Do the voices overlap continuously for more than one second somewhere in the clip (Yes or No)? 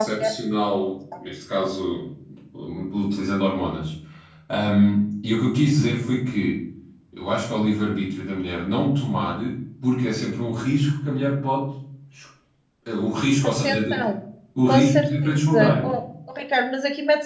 Yes